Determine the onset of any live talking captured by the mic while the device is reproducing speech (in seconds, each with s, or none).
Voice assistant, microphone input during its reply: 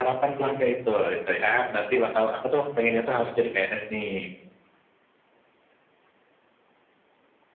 none